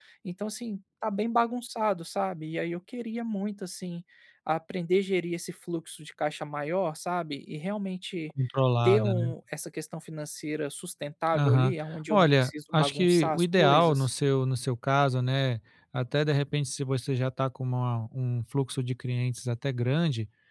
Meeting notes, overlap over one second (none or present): present